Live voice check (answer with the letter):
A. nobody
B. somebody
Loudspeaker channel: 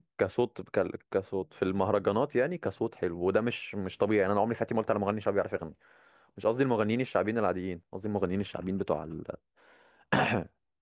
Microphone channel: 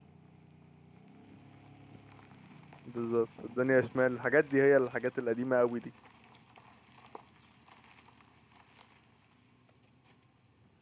B